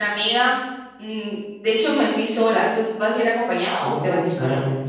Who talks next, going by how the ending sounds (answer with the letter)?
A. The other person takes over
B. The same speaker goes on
A